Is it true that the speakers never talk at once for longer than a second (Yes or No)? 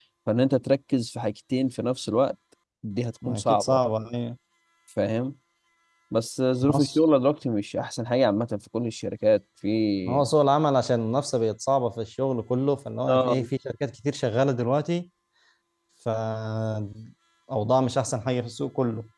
Yes